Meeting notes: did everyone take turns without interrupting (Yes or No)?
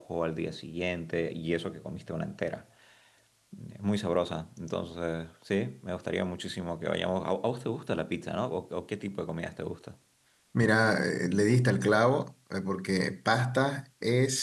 Yes